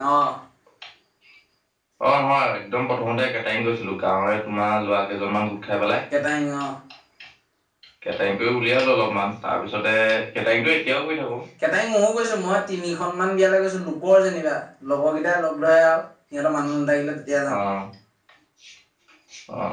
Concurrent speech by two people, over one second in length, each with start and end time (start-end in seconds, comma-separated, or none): none